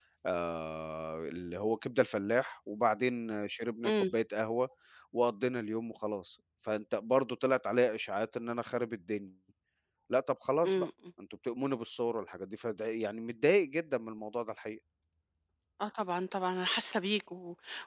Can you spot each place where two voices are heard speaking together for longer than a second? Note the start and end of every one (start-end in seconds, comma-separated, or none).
none